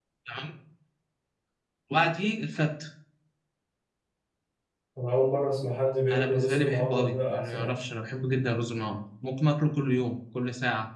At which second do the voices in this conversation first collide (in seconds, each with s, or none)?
6.1 s